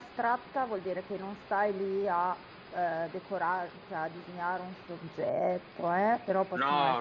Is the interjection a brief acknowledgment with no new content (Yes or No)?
Yes